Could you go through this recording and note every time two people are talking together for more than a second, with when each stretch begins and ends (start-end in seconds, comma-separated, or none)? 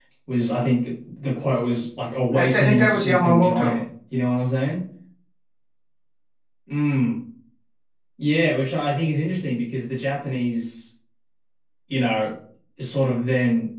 2.3-3.8